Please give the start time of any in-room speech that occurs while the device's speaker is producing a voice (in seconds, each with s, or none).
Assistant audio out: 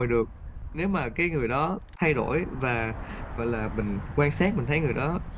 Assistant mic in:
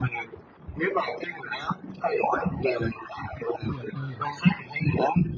3.3 s